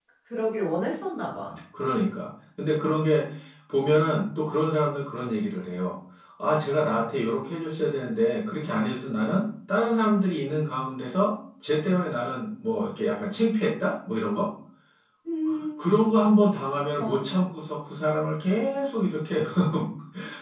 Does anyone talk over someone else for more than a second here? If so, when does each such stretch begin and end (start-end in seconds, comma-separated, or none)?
none